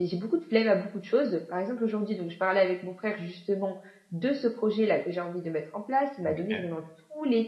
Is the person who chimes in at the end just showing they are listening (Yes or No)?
Yes